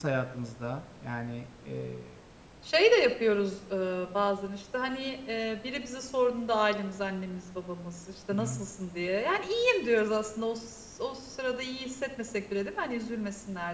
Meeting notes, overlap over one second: none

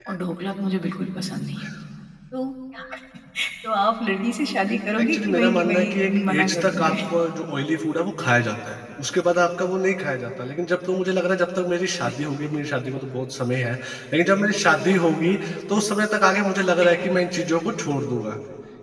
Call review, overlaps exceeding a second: present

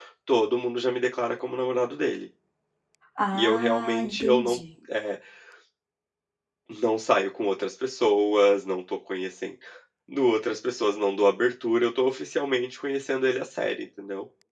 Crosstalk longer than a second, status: present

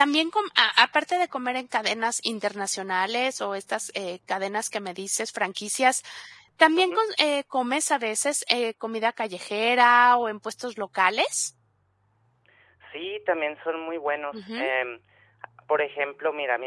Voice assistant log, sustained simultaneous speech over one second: none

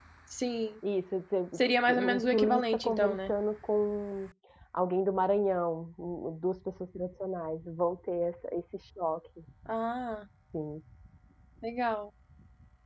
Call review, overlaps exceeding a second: present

